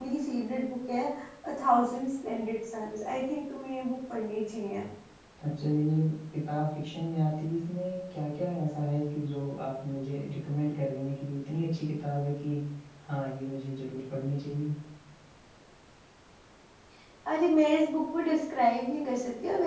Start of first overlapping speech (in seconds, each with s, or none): none